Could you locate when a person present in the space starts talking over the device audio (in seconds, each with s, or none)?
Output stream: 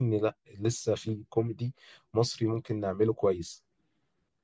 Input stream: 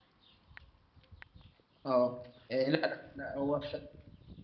1.9 s